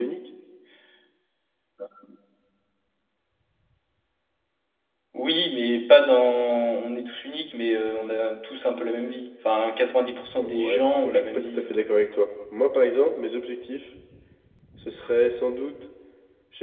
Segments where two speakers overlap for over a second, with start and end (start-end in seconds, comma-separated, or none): 10.4-12.1